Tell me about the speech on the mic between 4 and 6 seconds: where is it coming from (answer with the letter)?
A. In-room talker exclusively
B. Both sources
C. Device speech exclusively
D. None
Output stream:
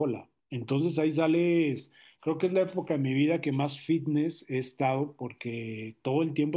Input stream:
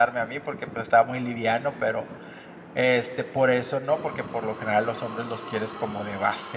A